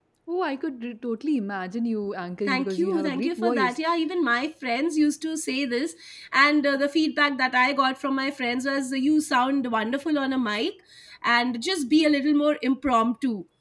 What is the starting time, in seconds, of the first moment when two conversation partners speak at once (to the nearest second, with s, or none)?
2 s